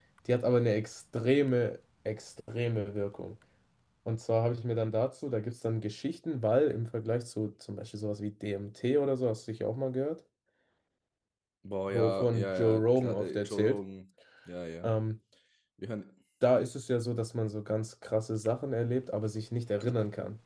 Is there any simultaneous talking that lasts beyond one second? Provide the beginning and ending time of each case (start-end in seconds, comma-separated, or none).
11.9-13.8